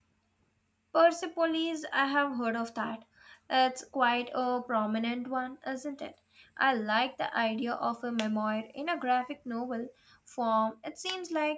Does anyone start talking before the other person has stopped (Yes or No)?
No